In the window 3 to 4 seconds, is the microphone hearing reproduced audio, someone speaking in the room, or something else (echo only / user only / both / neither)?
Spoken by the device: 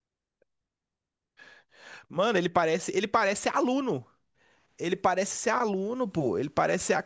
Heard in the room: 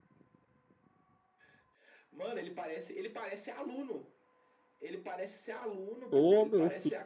echo only